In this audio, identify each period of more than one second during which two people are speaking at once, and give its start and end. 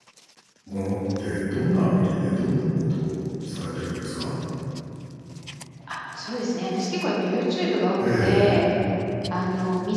none

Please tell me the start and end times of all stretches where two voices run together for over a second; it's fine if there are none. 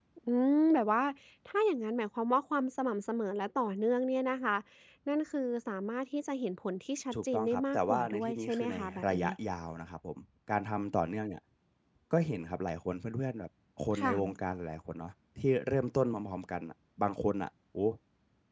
7.1-9.3

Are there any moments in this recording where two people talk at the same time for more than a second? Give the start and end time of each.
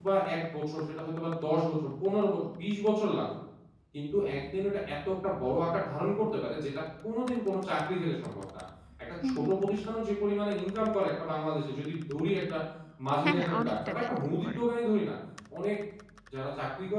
13.2-14.6

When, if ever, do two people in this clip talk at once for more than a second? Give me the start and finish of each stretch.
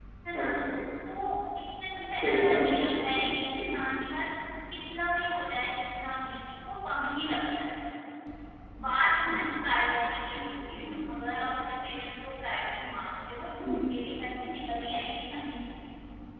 2.2-3.8

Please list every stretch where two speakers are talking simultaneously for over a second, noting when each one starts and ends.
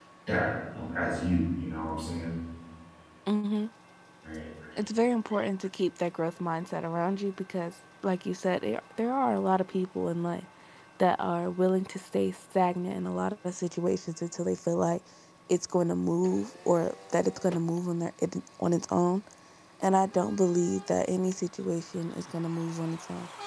none

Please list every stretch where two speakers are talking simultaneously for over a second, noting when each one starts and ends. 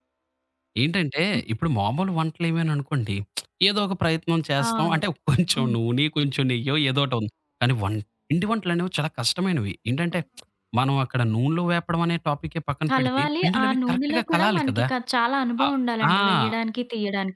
12.9-14.8

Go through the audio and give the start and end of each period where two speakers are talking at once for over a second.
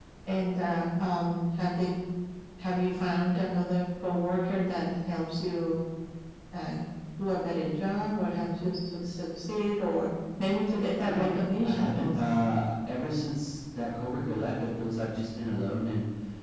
11.0-12.4

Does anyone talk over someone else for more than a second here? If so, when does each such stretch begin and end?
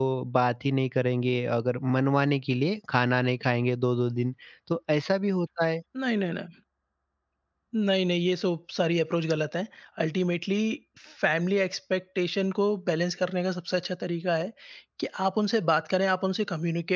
none

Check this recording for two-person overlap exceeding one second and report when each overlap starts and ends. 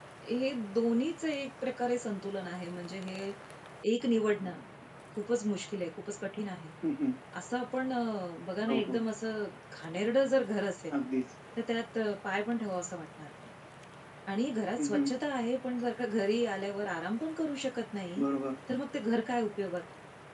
none

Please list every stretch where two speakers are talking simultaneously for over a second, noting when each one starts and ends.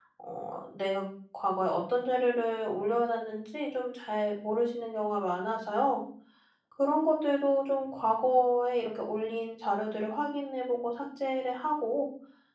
none

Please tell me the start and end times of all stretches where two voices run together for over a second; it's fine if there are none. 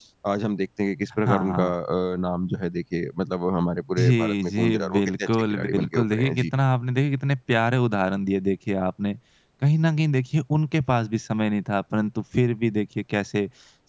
4.0-6.5

